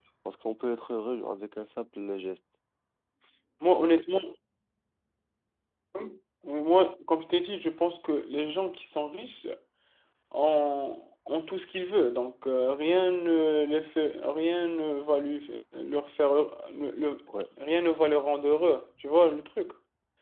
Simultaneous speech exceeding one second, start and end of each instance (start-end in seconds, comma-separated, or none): none